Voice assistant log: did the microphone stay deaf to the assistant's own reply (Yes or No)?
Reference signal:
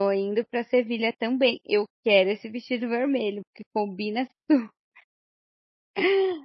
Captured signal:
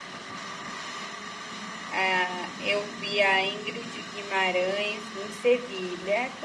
Yes